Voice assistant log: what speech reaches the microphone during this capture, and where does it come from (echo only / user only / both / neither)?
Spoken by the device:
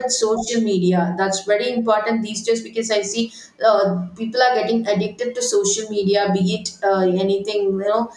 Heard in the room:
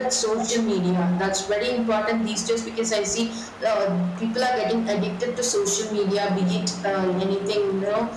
echo only